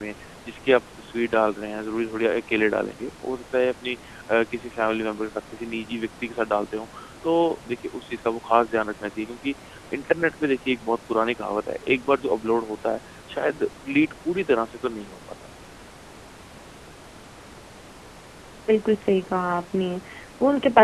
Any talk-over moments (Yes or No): No